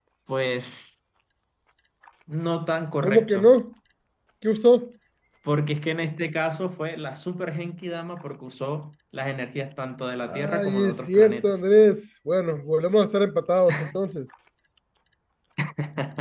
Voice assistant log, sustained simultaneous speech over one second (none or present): present